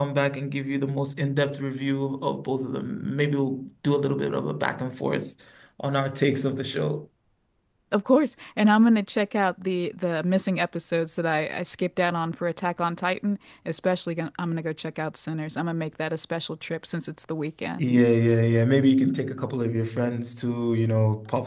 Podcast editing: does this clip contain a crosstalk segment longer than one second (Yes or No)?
No